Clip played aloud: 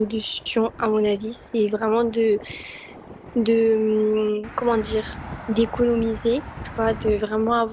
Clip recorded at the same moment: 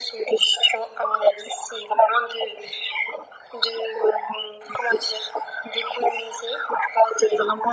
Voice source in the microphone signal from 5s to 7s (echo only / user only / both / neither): echo only